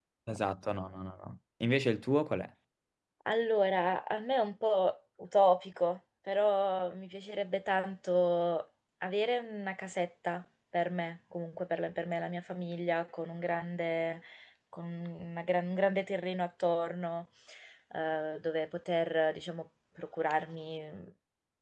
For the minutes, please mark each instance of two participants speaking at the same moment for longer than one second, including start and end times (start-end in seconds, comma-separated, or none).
none